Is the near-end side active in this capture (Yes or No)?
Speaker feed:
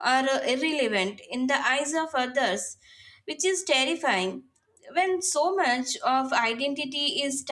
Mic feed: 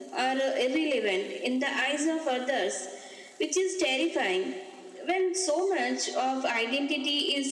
No